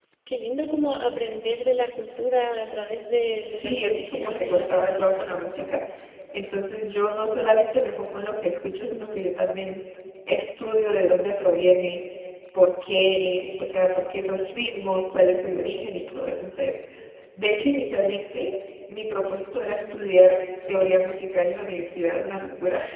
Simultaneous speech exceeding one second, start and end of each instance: 3.4-5.3

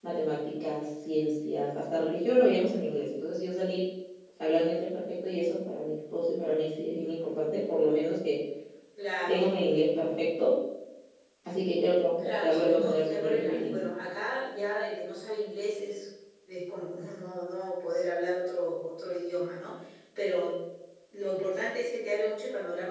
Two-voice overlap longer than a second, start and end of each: 12.2-13.9

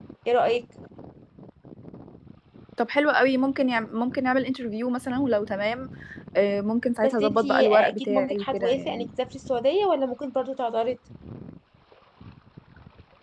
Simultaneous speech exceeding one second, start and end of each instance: 7.0-9.1

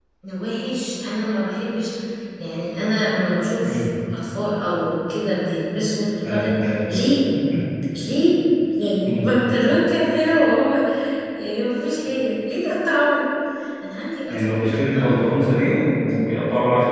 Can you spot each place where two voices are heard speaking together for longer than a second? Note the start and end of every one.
14.3-15.9

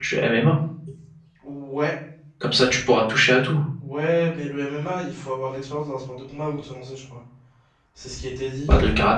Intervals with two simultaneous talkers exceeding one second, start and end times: none

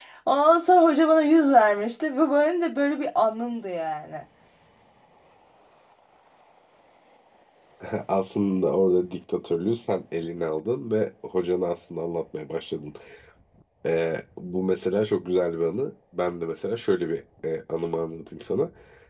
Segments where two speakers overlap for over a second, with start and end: none

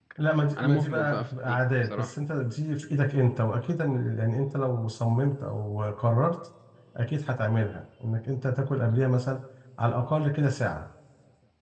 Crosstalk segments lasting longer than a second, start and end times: 0.6-2.1

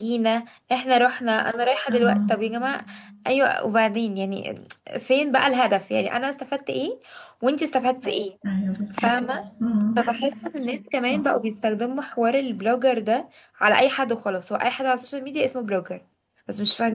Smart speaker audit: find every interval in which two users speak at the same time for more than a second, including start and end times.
none

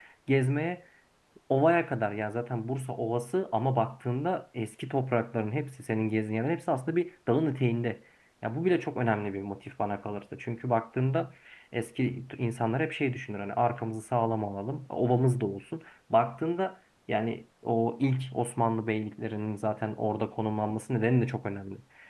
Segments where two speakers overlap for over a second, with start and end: none

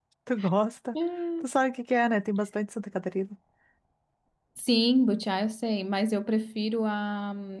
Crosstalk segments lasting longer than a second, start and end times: none

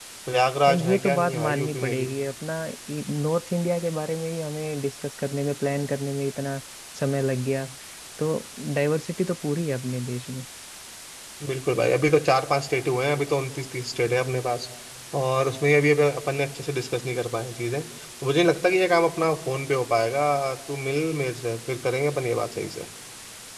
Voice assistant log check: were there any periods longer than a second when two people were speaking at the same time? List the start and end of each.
0.8-2.1

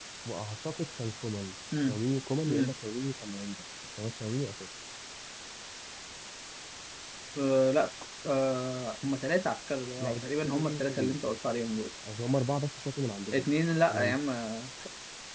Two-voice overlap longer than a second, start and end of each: 10.0-11.3

